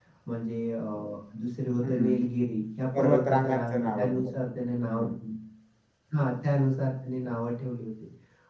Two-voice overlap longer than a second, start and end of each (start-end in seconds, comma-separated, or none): 3.0-4.3